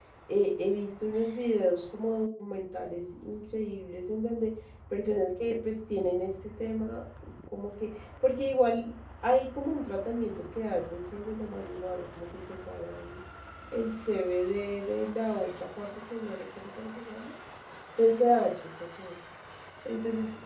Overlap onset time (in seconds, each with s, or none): none